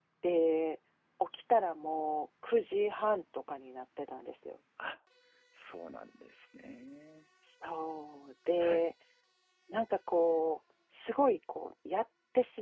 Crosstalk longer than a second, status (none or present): none